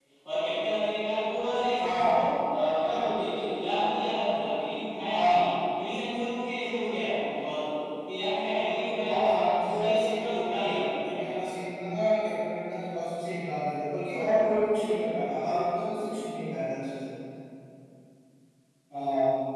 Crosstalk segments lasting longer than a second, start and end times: 9.1-11.5

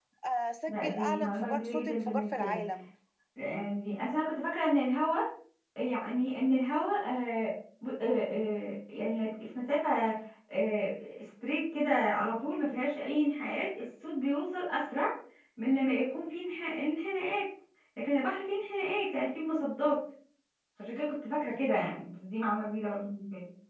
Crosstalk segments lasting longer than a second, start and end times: 0.7-2.6

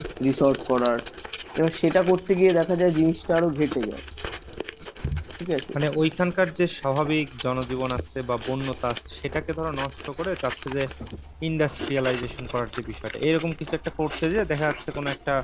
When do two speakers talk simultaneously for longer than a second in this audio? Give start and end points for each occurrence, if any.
none

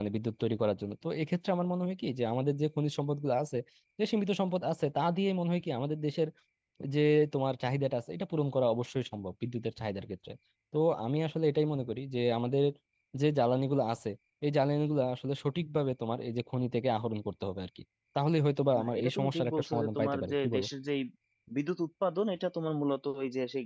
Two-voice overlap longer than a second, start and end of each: 18.8-20.6

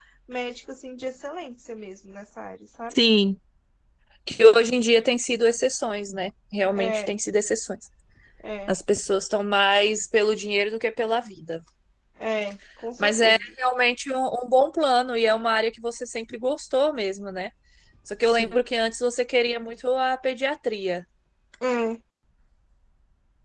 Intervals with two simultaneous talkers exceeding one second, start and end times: none

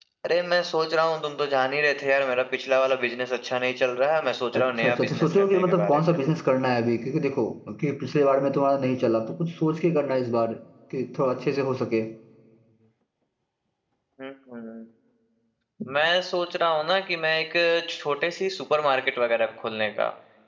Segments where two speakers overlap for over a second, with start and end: 4.6-6.2

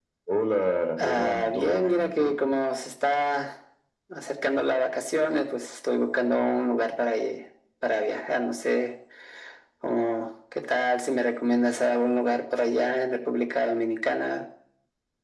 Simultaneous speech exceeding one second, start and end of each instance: 1.0-2.4

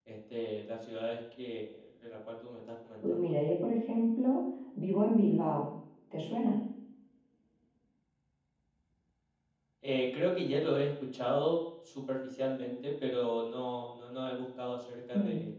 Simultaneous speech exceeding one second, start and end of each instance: none

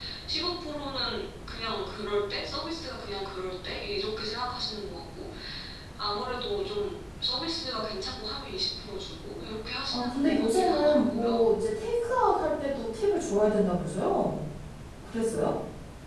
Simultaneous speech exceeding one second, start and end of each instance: 9.9-11.5

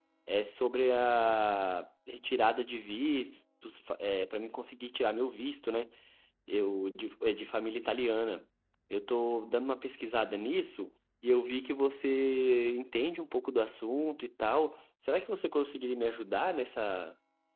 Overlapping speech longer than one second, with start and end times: none

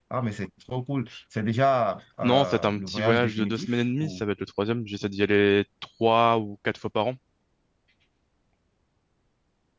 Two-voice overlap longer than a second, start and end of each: 2.2-4.2

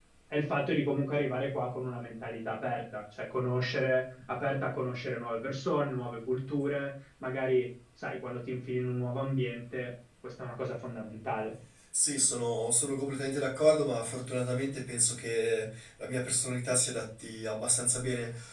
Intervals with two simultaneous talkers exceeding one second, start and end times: none

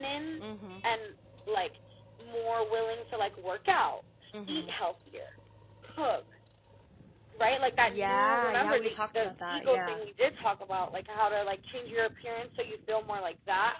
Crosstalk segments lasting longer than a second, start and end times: 7.9-10.0

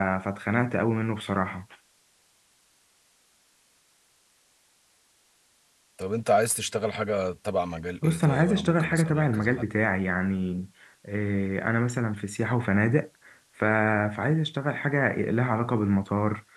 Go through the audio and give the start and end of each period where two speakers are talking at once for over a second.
8.0-9.7

